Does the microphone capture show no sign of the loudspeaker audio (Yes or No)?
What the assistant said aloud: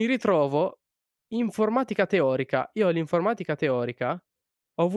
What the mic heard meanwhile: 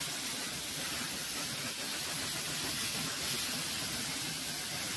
Yes